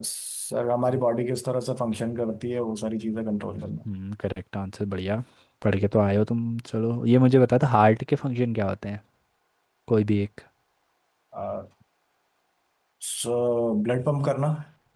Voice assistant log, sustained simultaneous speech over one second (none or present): none